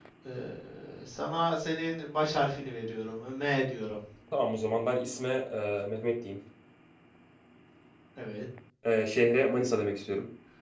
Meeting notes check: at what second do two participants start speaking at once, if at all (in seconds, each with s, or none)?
none